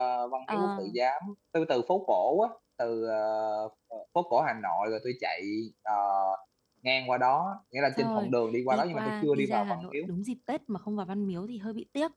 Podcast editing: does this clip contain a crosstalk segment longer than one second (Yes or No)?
Yes